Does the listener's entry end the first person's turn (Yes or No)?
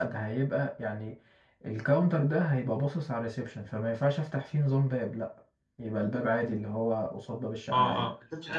Yes